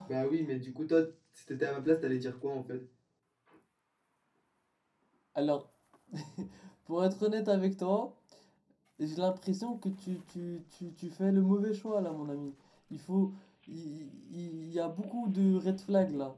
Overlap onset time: none

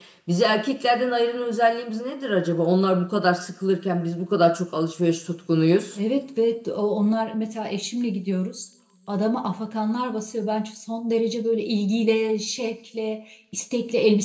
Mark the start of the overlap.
none

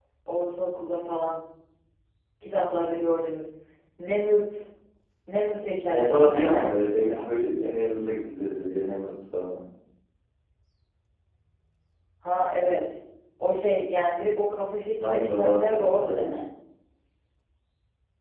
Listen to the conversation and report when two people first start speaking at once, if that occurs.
5.9 s

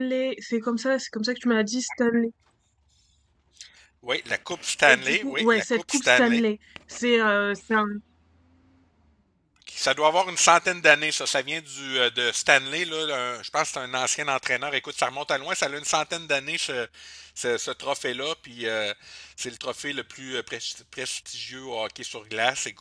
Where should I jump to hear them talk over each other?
4.9 s

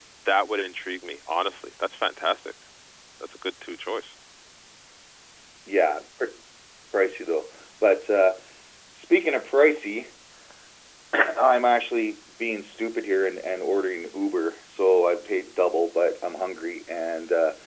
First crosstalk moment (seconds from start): none

